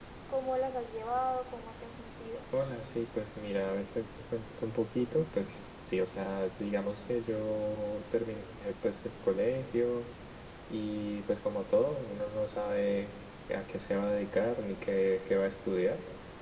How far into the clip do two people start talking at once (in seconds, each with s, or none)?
none